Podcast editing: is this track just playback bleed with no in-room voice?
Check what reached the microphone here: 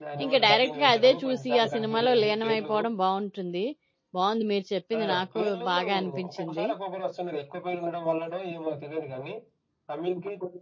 No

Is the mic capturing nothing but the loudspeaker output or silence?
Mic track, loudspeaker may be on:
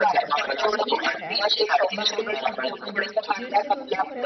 No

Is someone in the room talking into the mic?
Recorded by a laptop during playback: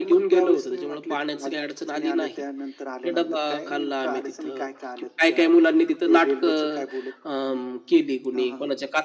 No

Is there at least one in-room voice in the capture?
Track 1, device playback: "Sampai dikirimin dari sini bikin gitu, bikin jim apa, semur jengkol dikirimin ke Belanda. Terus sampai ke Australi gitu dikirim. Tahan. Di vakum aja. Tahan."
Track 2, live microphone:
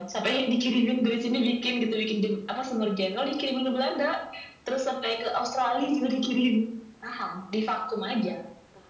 No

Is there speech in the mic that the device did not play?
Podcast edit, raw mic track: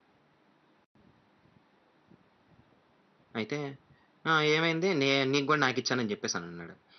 Yes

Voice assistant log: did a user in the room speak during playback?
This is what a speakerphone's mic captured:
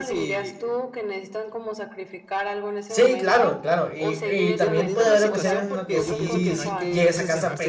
Yes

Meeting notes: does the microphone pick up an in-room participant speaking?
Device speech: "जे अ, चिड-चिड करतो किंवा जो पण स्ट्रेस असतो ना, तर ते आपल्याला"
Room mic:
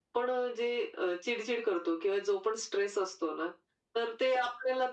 No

